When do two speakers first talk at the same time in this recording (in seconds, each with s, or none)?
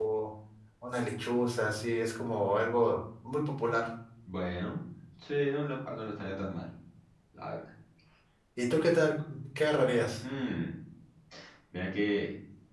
none